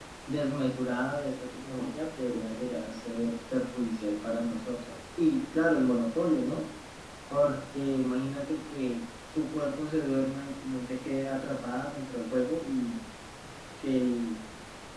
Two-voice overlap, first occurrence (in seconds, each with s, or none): none